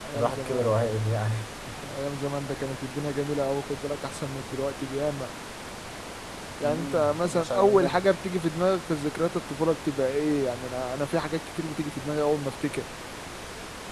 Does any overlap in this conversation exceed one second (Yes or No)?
Yes